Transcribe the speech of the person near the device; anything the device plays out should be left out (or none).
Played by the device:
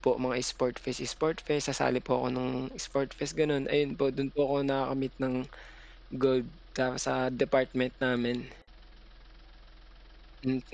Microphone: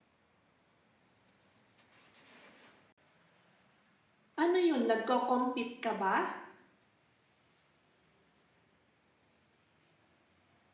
Ano 'yun, nagko-compete ka ba?